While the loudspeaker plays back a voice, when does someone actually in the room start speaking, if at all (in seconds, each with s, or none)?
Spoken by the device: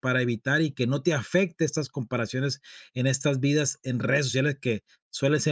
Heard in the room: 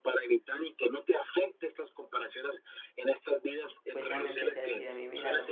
3.9 s